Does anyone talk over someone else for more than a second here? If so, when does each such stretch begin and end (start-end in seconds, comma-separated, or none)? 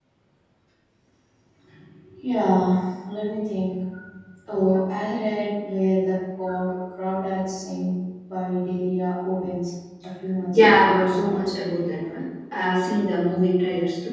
10.5-12.1